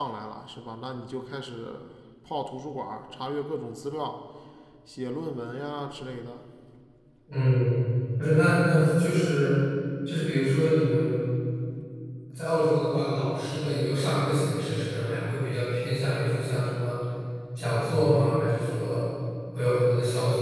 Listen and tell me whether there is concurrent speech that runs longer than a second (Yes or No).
No